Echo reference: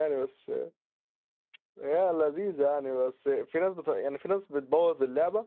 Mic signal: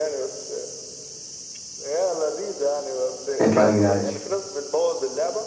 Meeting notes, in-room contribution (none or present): present